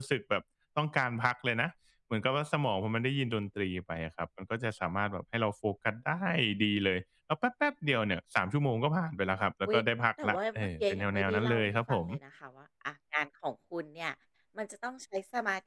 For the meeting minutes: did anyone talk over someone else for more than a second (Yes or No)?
Yes